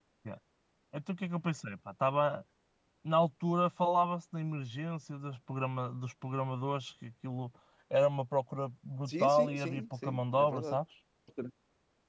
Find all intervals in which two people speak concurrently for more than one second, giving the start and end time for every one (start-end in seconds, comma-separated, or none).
9.1-10.8